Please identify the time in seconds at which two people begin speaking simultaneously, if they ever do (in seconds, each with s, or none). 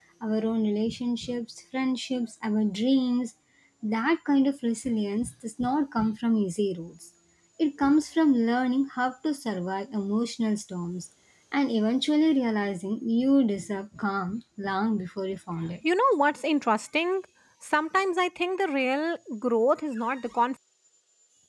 none